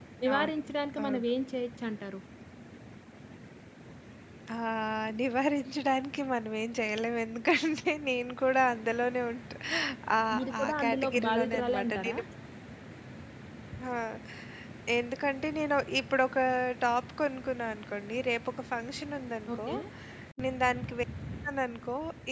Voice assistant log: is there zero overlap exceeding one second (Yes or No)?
No